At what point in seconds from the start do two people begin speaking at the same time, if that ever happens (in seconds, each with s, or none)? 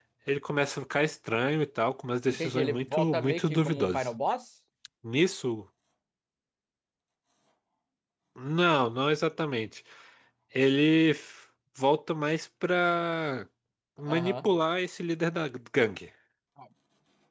2.3 s